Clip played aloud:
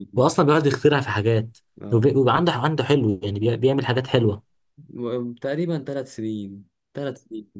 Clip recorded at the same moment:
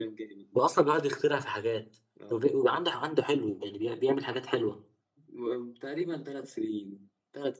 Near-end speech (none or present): none